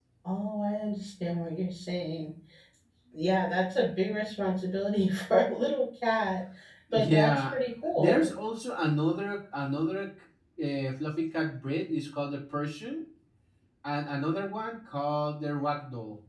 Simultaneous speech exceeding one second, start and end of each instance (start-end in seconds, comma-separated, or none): 6.9-8.3